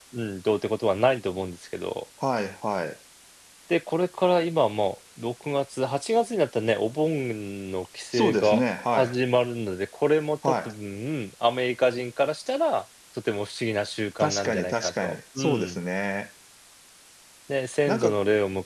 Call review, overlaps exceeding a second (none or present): present